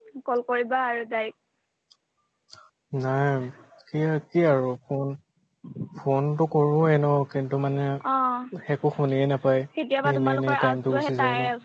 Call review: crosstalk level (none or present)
present